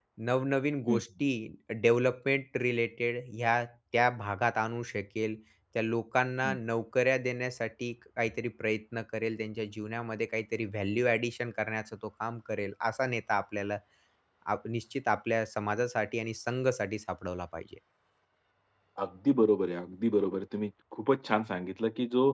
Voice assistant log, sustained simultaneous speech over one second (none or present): none